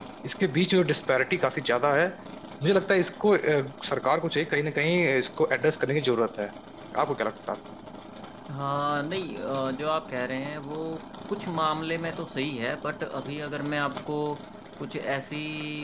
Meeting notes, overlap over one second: none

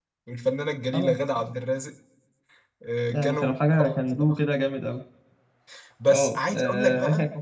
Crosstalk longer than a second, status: present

